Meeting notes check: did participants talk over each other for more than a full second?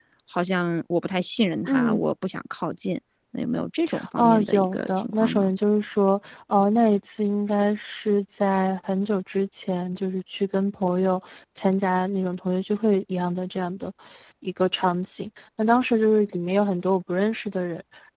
Yes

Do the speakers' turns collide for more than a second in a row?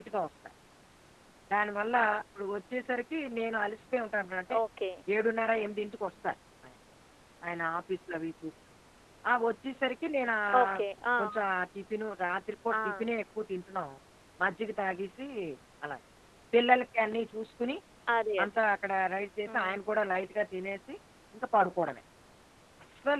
No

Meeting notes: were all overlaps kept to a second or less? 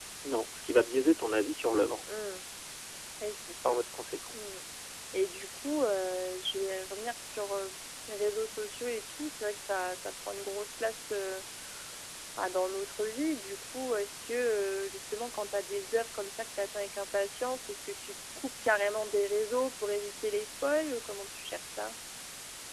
Yes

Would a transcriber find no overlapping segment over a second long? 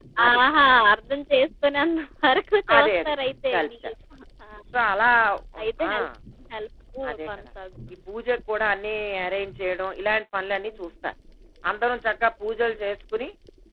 Yes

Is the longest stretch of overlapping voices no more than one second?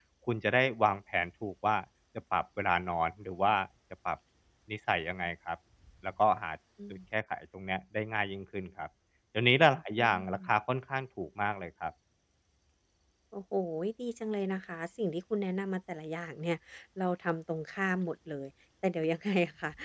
Yes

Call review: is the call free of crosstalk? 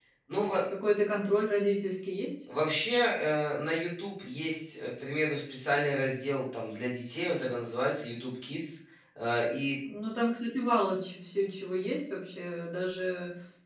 Yes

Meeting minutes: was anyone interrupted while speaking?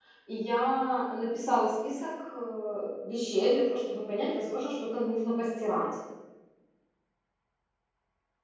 No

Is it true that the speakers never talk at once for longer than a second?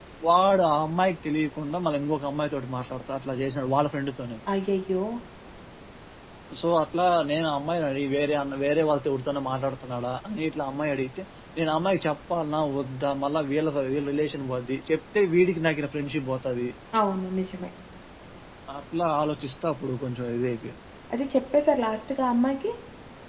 Yes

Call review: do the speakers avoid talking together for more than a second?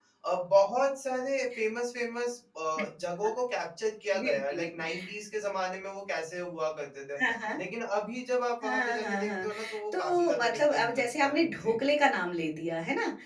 No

